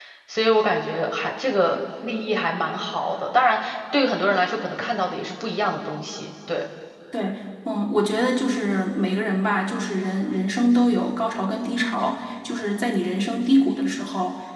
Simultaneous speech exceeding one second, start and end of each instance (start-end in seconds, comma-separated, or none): none